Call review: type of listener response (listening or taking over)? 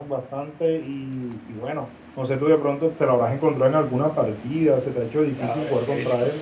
taking over